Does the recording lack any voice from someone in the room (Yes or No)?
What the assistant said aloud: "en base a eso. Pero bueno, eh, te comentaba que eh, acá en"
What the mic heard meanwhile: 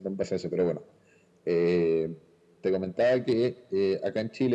Yes